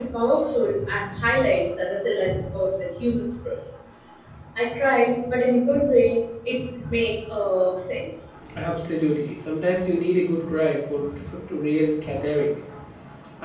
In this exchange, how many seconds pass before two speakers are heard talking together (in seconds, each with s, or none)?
none